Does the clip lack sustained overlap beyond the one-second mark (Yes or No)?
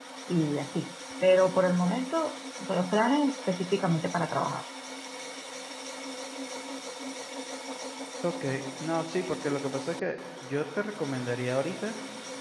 Yes